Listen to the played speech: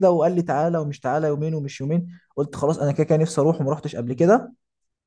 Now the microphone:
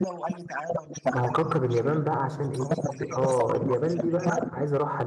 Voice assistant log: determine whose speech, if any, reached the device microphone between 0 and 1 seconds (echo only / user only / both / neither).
echo only